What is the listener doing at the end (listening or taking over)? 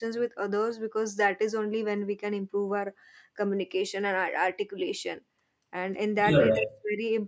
listening